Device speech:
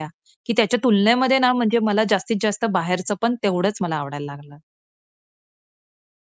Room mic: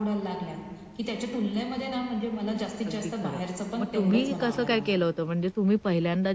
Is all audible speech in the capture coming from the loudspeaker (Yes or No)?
No